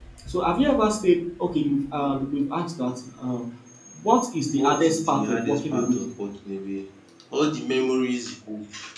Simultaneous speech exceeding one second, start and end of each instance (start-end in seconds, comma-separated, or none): 4.5-6.0